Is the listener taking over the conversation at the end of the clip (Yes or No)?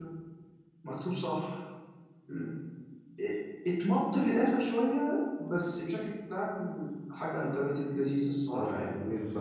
Yes